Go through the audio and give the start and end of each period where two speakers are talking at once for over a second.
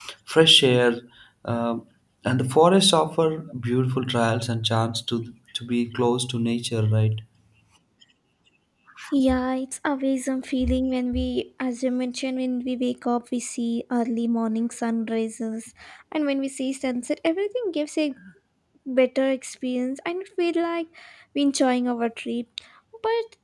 none

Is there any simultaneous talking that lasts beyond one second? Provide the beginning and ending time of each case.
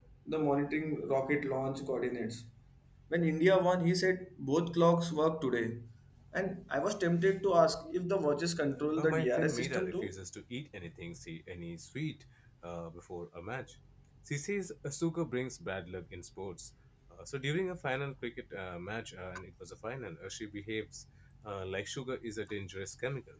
9.0-10.2

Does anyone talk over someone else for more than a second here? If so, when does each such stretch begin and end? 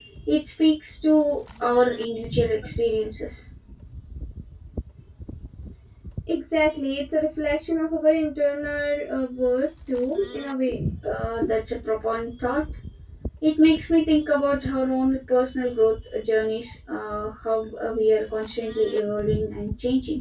none

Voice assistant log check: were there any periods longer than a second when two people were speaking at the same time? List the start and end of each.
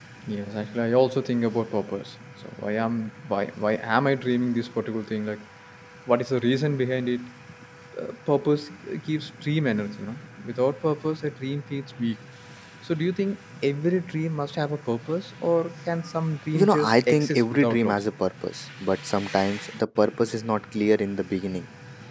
16.5-18.1

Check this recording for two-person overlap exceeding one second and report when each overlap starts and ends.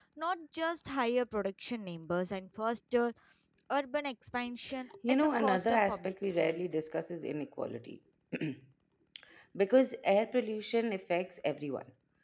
5.1-6.6

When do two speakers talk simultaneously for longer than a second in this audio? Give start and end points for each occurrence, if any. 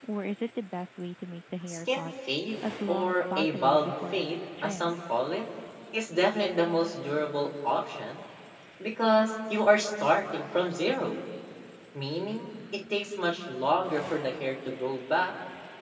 2.6-5.0

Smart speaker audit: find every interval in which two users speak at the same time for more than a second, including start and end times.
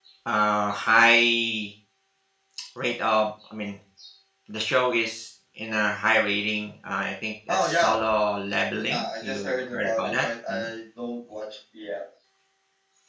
8.9-10.7

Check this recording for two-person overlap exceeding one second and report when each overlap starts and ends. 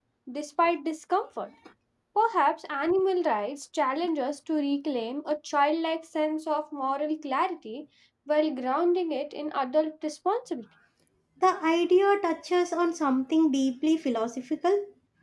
none

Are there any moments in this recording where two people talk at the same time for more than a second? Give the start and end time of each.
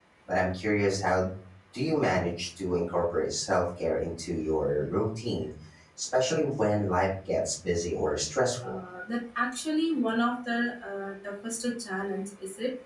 none

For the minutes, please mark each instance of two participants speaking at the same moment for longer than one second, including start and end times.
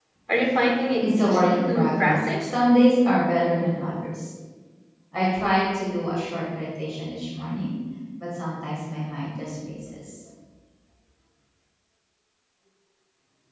1.0-2.5

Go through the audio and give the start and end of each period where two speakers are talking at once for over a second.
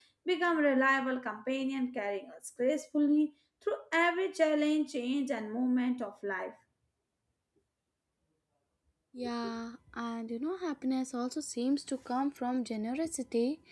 none

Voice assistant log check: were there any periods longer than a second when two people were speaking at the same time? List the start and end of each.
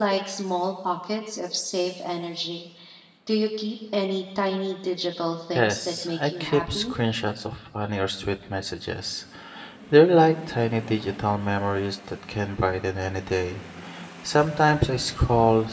5.5-6.9

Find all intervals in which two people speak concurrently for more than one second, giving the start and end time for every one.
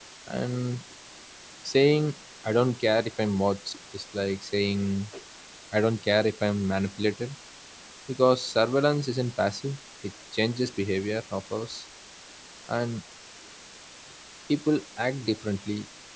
none

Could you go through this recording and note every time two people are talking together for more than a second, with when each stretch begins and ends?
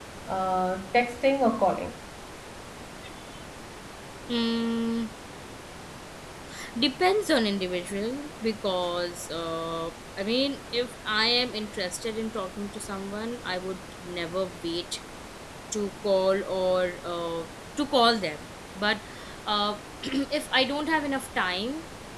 none

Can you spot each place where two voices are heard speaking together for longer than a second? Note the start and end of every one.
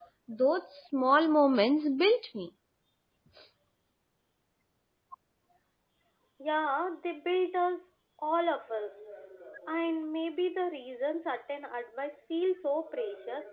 none

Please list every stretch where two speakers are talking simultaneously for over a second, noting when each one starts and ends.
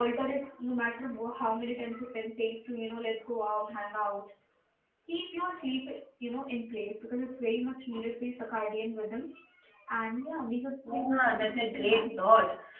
10.9-12.2

